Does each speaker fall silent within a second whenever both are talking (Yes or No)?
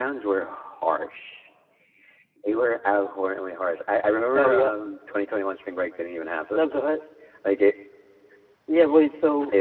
Yes